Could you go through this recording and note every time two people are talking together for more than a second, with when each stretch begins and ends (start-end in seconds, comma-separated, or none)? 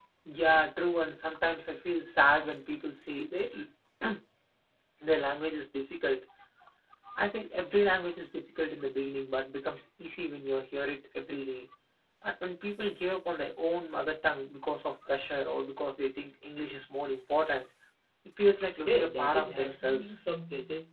18.9-20.2